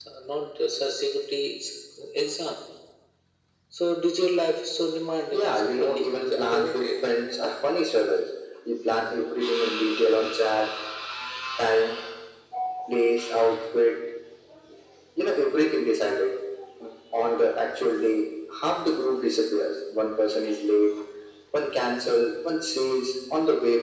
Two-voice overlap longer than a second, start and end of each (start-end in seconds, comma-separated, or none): 5.3-6.9